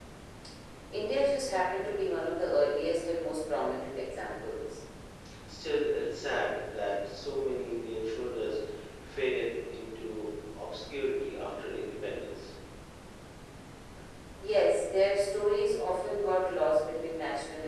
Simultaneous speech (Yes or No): No